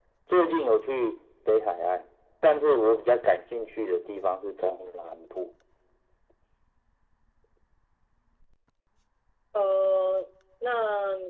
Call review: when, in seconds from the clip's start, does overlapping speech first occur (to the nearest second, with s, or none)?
none